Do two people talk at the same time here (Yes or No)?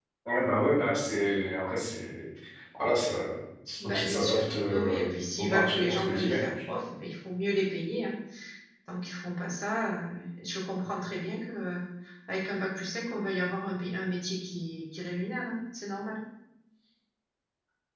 Yes